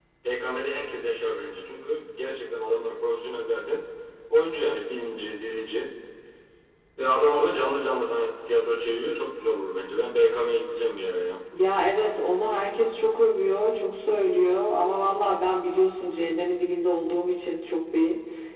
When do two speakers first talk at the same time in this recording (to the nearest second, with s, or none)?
none